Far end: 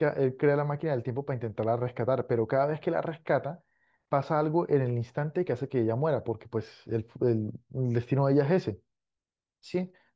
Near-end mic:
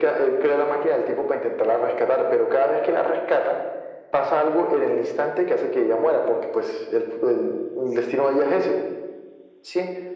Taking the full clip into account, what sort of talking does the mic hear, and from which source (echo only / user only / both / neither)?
echo only